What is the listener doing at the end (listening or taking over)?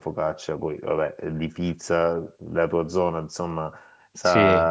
listening